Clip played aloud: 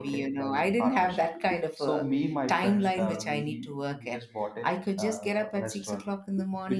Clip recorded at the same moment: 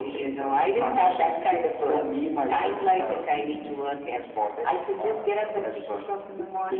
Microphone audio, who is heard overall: echo only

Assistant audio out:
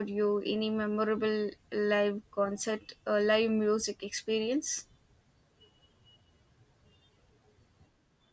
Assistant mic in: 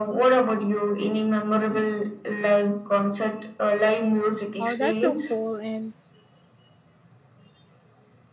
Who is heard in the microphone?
both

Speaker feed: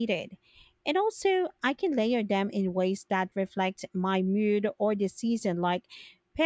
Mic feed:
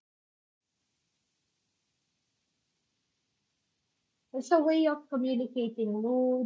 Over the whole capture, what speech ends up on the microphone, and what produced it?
user only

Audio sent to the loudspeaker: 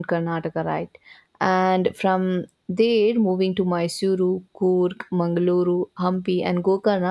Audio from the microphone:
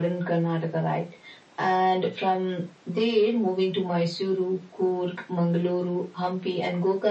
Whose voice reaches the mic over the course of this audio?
echo only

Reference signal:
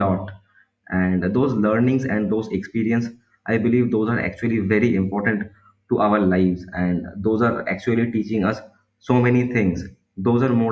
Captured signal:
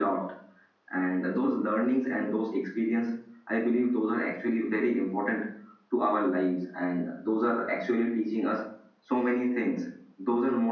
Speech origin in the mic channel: echo only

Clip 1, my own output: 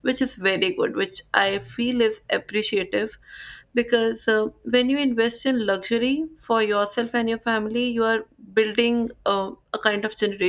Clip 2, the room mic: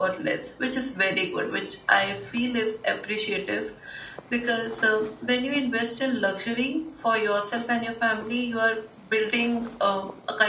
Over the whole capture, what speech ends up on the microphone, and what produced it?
echo only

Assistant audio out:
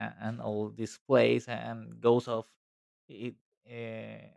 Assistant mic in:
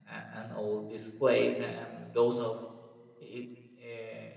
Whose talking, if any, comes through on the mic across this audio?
echo only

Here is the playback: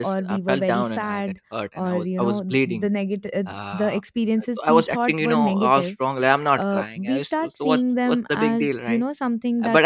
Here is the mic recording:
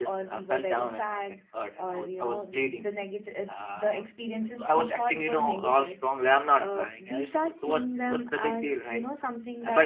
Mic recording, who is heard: echo only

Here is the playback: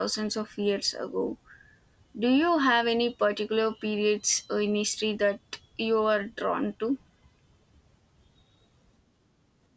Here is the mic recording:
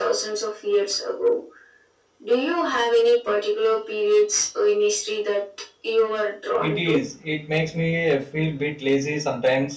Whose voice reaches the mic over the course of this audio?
both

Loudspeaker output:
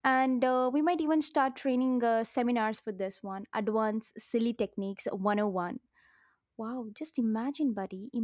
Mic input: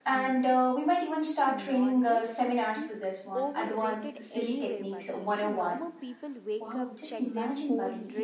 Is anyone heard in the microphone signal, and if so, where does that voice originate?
both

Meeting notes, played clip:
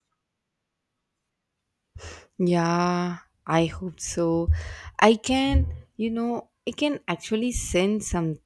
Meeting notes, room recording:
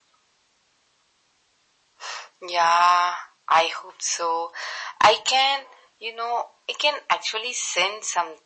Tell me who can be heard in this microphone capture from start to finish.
echo only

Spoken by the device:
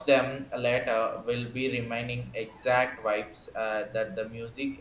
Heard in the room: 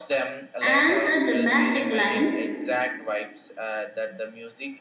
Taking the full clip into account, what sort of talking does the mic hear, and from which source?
both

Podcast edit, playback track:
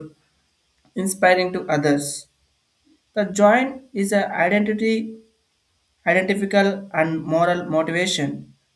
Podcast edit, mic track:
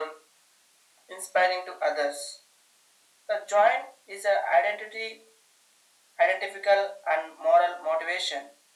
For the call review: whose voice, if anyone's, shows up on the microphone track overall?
echo only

